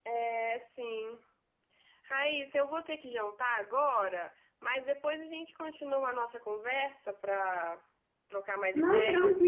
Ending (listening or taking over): taking over